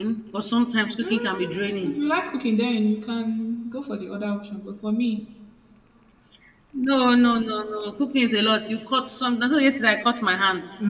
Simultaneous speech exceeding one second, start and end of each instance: none

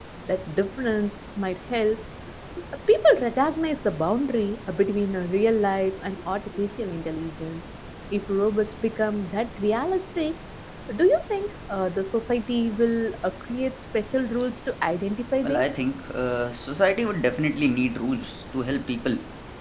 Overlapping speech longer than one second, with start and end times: none

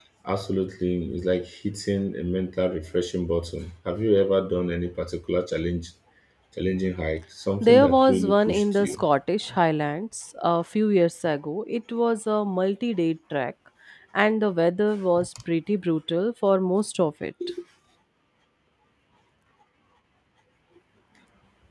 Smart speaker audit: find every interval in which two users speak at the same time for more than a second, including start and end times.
7.6-9.0

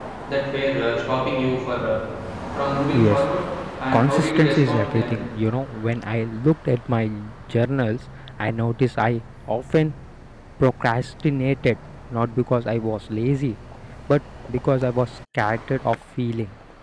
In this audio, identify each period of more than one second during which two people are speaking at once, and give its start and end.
3.9-5.2

